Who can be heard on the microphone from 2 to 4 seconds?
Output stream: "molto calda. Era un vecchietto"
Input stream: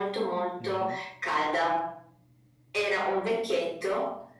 echo only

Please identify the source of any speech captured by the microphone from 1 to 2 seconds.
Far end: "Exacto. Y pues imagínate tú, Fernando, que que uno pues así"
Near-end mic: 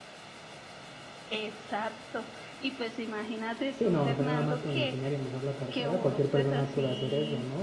echo only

